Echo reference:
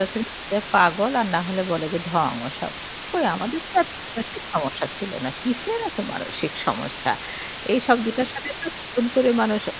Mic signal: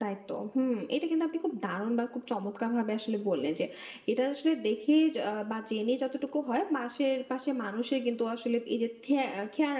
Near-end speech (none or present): present